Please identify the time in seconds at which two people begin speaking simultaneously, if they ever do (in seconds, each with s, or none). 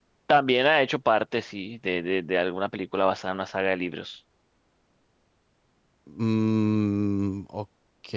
none